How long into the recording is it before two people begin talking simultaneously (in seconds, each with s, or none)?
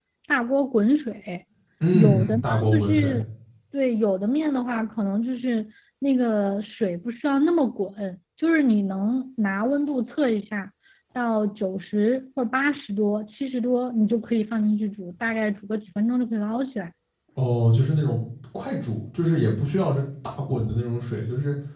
1.9 s